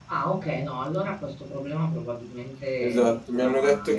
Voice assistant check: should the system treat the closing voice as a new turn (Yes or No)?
Yes